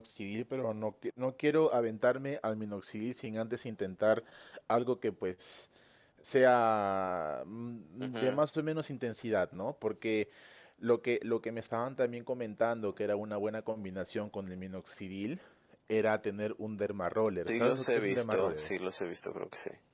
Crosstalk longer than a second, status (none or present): present